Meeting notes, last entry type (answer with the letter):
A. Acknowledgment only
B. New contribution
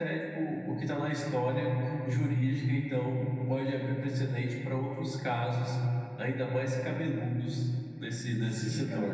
B